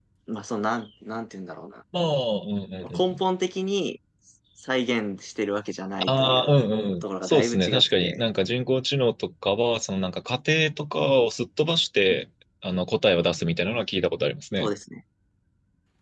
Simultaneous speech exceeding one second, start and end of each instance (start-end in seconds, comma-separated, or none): 7.0-8.2